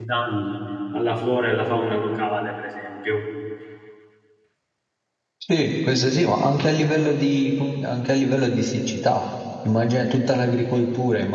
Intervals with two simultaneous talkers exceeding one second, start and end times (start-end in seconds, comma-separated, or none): none